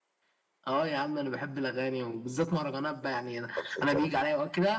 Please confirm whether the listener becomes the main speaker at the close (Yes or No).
No